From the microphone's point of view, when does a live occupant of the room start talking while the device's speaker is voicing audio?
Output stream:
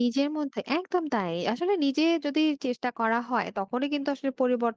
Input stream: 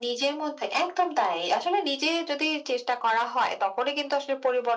none

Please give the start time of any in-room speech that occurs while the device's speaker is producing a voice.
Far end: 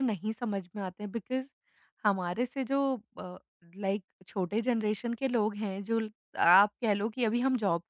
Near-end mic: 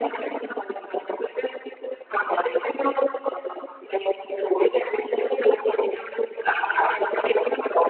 none

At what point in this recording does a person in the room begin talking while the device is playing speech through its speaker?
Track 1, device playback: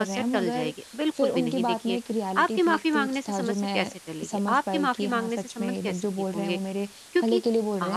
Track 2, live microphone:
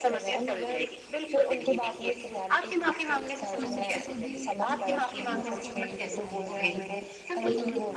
3.6 s

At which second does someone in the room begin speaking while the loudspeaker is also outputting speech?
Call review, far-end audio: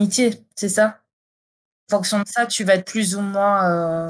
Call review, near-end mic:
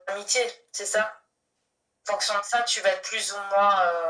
none

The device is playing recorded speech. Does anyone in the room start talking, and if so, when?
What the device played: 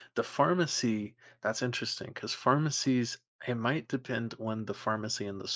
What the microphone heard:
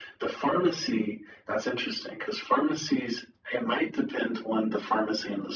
none

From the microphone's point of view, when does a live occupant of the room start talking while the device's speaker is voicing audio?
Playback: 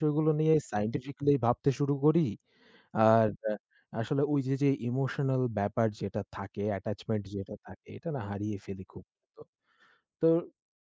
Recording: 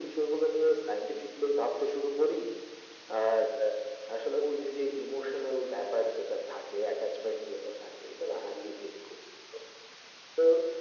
none

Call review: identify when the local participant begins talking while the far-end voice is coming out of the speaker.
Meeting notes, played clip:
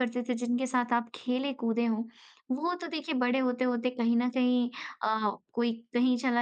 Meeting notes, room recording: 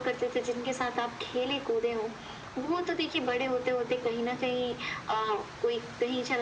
none

